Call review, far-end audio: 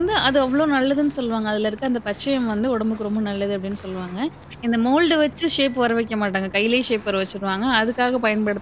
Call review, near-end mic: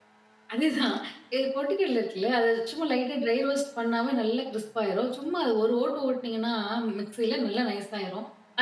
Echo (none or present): none